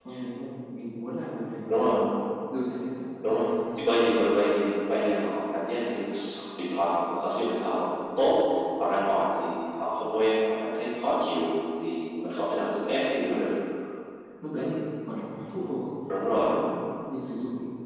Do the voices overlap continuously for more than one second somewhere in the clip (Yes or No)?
No